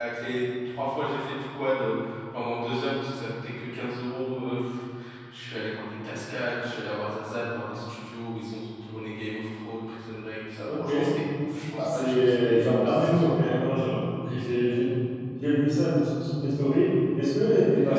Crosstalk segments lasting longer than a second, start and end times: 11.8-13.3

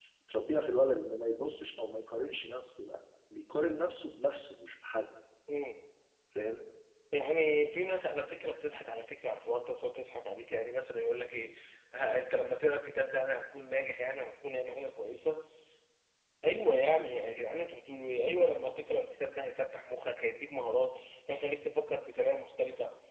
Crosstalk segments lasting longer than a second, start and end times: none

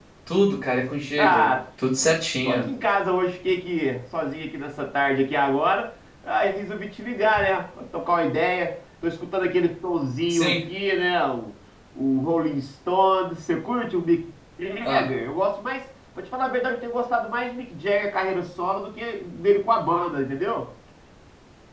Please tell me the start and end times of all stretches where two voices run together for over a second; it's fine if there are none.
none

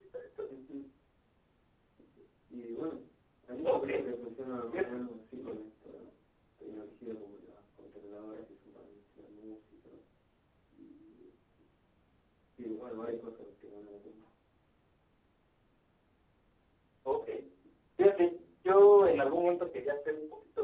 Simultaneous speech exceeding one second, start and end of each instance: none

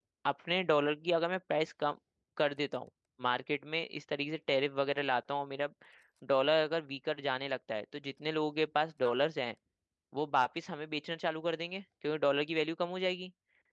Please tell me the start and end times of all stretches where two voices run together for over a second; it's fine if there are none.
none

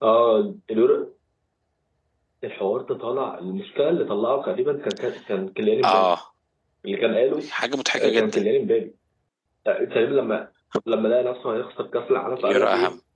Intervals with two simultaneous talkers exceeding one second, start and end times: none

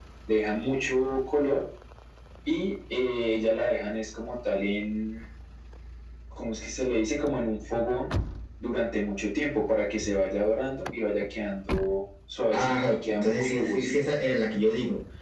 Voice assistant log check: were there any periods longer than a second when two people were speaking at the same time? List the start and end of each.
12.5-13.9

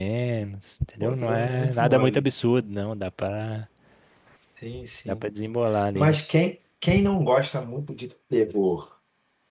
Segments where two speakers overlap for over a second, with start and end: 1.0-2.2

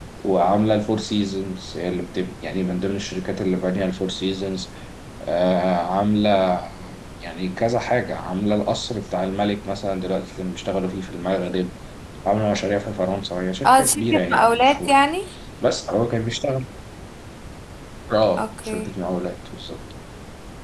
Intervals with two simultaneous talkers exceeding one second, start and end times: 13.7-15.0

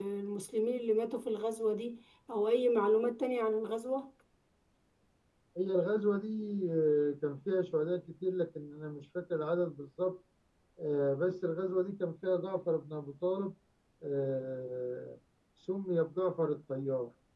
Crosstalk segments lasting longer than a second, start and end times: none

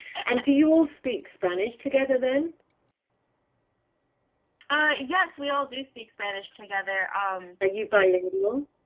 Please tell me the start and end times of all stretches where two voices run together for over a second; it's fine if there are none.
none

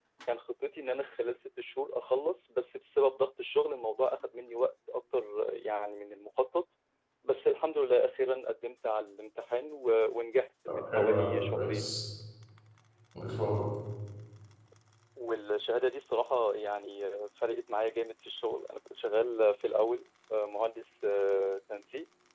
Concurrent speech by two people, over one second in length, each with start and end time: 10.7-11.9

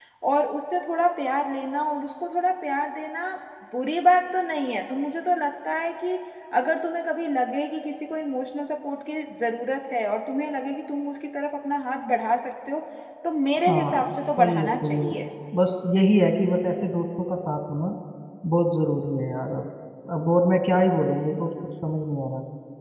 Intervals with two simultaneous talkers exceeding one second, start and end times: 13.7-15.1

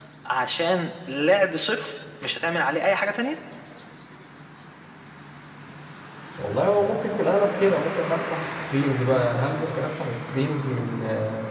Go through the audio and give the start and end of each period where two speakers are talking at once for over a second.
none

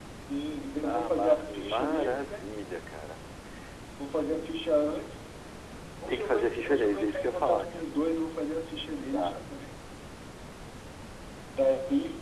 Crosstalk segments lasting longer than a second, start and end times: 0.8-2.5, 6.1-7.6

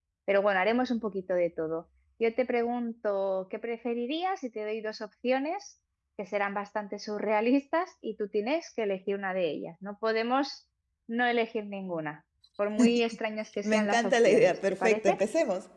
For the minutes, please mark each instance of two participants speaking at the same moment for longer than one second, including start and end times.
13.6-15.2

